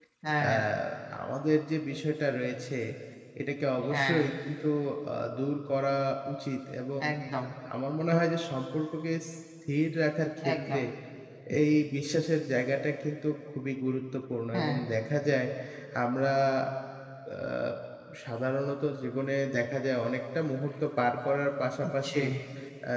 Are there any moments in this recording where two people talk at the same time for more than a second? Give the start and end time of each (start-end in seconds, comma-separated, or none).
none